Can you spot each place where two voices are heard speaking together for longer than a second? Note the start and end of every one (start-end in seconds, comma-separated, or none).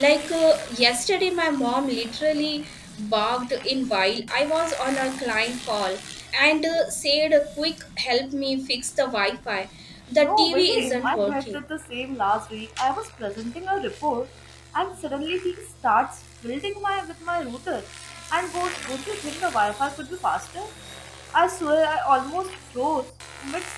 10.2-11.6